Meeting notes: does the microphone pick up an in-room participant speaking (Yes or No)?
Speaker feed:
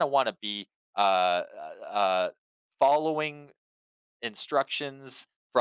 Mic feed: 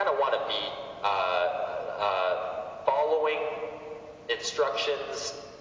No